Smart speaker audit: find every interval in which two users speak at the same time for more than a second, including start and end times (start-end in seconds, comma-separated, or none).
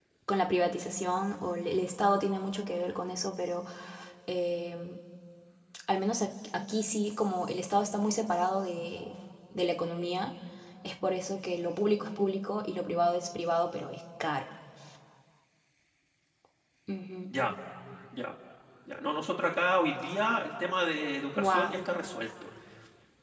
none